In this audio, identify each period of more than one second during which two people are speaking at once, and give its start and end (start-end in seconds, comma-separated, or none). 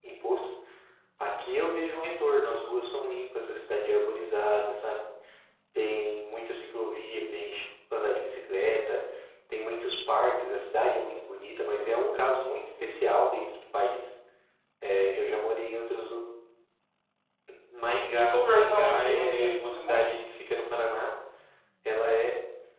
18.1-20.1